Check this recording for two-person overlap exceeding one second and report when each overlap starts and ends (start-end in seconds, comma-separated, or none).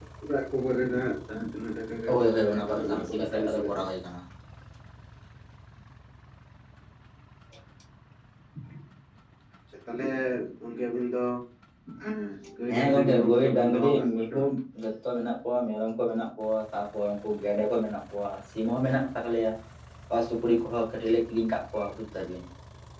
2.1-3.8, 12.7-14.4